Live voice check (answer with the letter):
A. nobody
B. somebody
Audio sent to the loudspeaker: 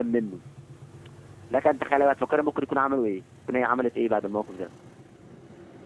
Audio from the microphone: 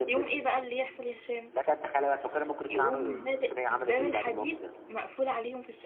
B